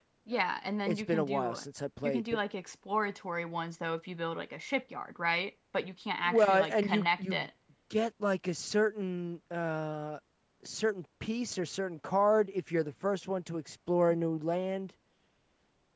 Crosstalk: present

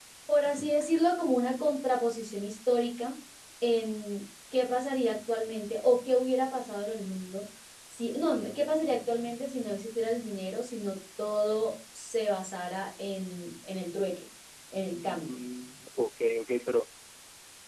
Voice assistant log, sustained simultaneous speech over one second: none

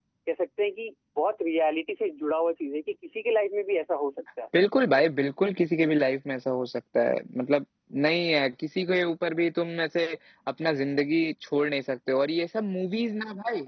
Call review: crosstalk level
none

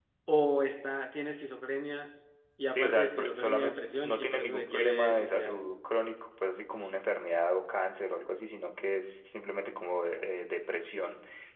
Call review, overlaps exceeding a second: present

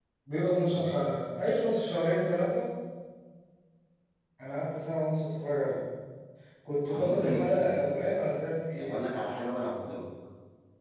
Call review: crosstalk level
present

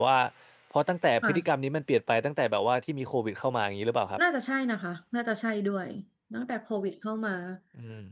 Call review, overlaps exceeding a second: none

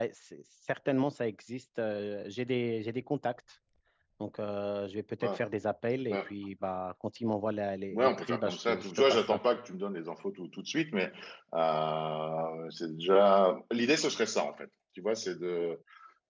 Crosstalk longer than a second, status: present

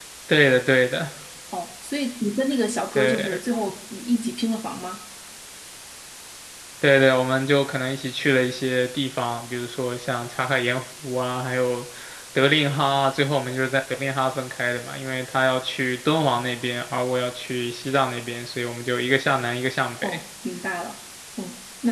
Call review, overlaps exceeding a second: none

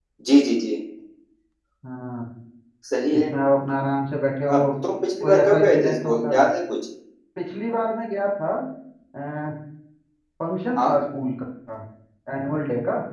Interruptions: present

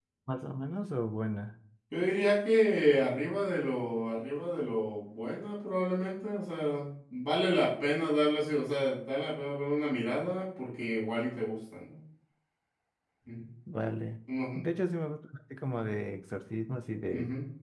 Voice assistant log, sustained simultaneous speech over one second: none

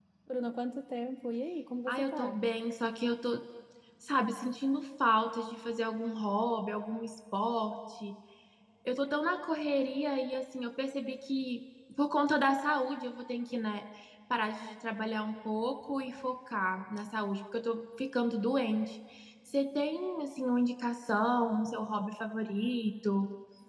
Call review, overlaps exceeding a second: none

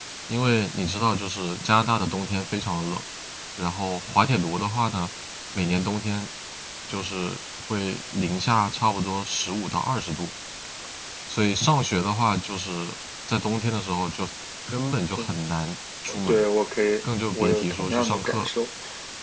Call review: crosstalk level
present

